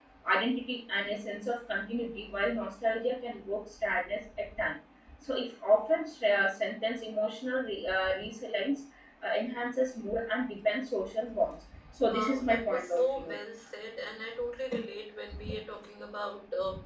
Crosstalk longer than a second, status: present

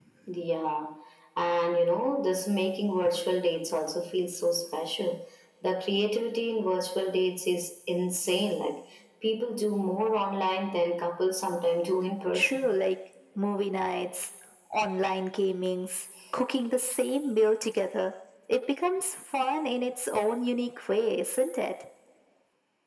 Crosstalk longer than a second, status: none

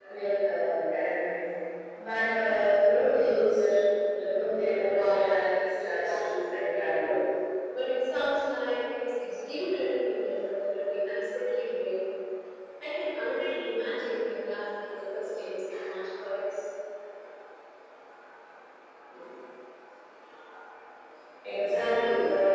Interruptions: present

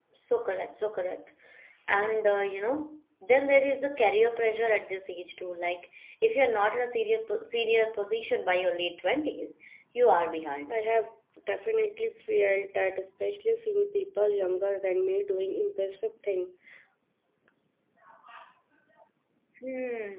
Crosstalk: none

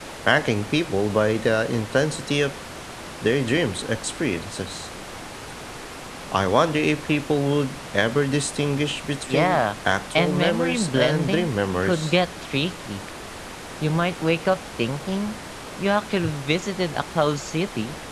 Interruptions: present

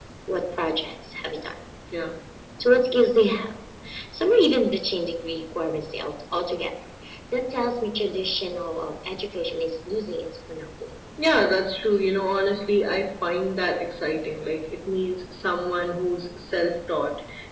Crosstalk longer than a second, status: none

